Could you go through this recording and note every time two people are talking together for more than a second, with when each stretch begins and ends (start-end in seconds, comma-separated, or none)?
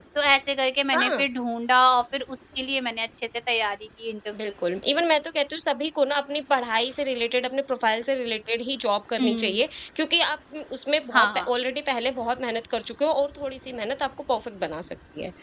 none